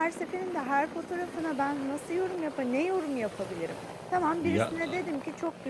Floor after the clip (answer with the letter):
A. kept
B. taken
A